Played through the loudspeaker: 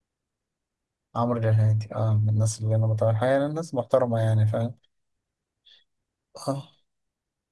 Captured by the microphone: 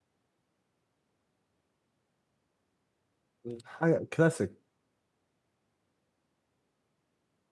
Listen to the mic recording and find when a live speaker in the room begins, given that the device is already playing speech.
3.4 s

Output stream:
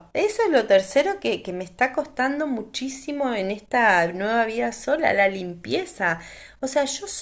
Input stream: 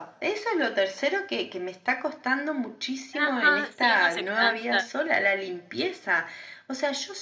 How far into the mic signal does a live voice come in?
3.1 s

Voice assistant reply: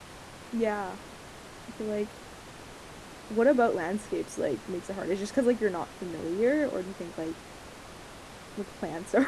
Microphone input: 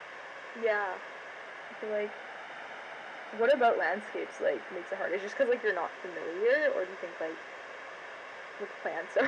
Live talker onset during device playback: none

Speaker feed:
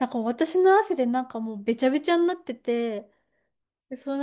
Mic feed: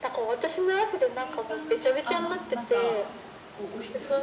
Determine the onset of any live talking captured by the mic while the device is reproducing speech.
1.1 s

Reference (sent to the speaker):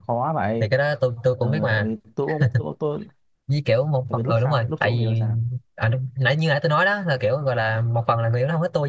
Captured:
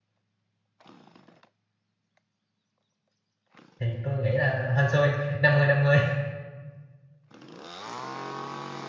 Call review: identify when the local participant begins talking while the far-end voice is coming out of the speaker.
3.8 s

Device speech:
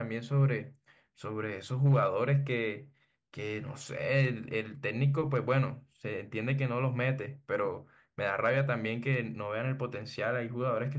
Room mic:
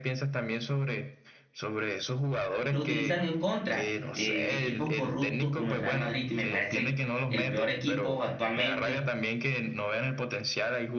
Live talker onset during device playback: 2.7 s

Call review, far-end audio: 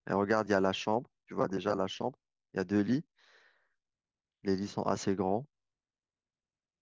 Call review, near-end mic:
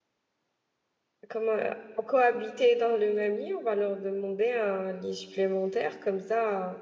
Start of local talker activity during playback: 1.3 s

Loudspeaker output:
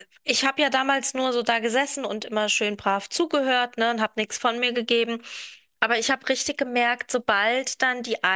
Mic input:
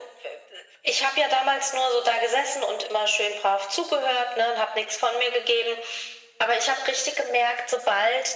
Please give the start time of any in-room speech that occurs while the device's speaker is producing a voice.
none

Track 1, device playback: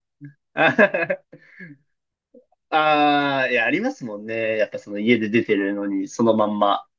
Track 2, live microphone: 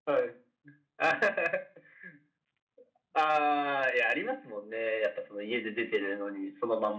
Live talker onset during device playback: none

